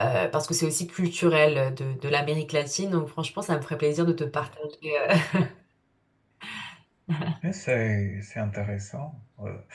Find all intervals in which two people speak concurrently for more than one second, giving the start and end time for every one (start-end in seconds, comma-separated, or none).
none